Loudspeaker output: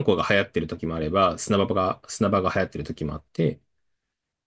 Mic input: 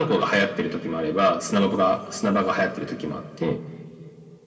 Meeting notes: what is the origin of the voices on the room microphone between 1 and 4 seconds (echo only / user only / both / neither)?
echo only